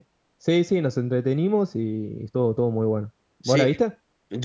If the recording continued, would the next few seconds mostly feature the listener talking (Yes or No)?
Yes